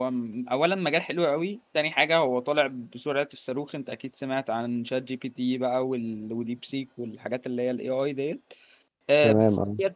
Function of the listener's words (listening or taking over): listening